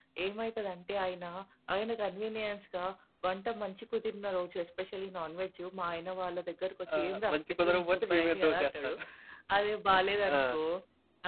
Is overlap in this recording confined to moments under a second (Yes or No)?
No